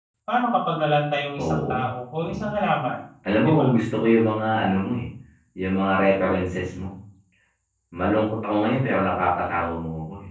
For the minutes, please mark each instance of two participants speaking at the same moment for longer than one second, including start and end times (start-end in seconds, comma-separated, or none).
none